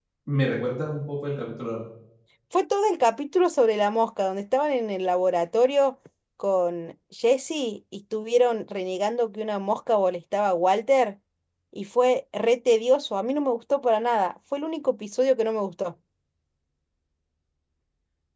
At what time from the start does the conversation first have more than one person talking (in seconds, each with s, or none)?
none